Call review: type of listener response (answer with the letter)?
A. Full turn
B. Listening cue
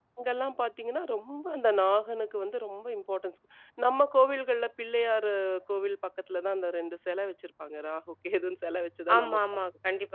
A